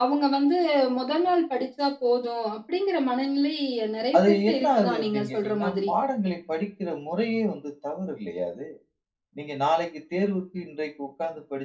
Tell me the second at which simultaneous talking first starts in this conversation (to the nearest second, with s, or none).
4 s